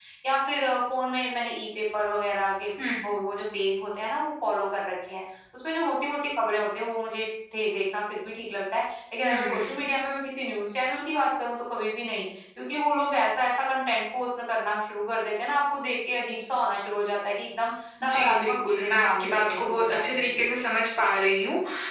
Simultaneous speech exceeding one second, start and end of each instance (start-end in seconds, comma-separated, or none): 18.0-20.5